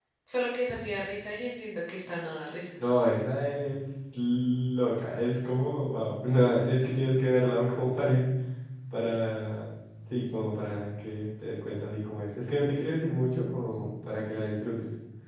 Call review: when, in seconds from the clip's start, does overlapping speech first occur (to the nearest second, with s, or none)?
none